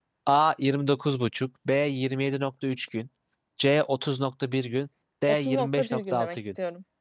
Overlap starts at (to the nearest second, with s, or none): 5 s